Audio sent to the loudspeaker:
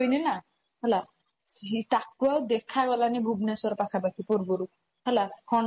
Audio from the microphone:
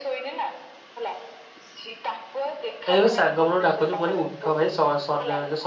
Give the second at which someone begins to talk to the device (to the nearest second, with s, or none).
3 s